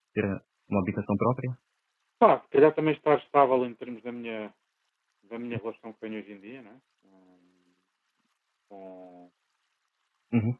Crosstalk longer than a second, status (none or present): none